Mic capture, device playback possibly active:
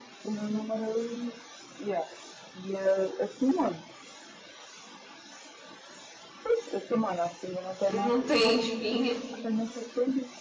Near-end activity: present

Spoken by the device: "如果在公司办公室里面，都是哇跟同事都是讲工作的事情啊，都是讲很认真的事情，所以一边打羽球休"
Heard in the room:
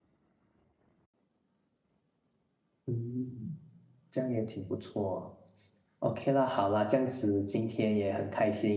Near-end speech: present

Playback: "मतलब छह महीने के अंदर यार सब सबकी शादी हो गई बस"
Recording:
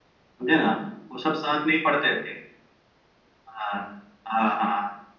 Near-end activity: present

